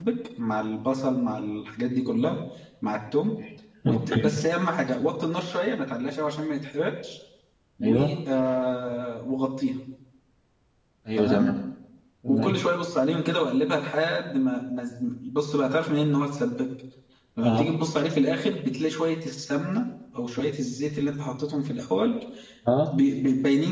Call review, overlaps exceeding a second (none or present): none